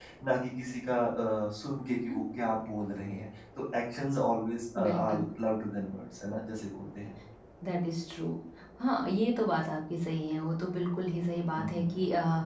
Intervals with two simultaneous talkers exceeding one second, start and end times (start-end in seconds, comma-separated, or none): none